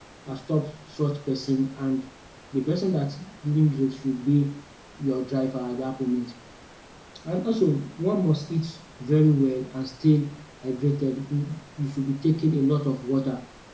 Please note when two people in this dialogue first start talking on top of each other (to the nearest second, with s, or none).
none